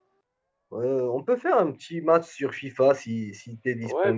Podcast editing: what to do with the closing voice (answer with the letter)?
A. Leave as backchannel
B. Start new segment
B